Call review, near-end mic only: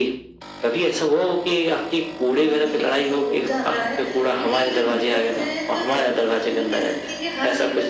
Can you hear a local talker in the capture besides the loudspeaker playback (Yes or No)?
Yes